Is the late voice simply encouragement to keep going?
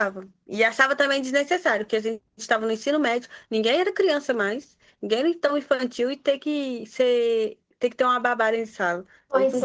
No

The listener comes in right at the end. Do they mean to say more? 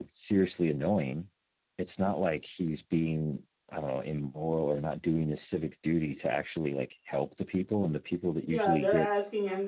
Yes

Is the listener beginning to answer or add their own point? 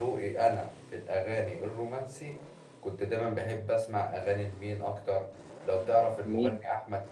No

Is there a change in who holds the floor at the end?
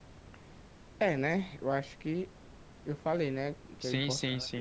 Yes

